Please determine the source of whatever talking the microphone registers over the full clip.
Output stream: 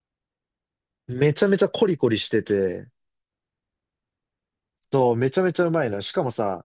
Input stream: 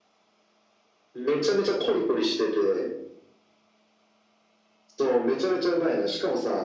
echo only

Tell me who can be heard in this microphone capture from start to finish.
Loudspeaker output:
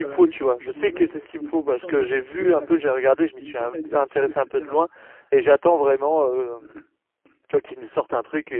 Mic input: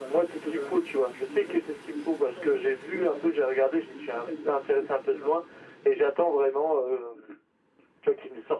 echo only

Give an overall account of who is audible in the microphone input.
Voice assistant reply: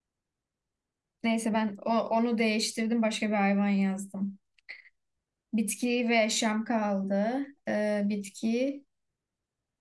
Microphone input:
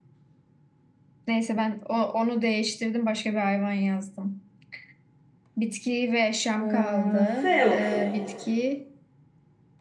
both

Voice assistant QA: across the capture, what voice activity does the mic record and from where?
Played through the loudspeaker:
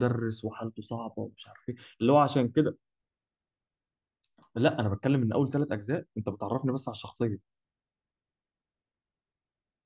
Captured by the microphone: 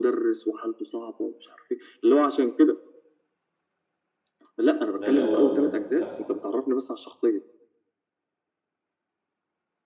both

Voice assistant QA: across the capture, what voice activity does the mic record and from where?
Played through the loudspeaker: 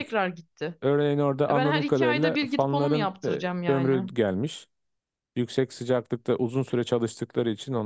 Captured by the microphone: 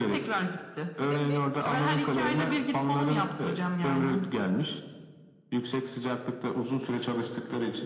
both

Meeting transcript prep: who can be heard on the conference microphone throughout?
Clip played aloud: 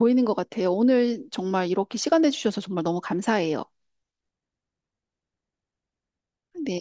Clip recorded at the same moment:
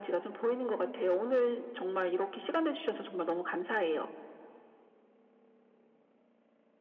echo only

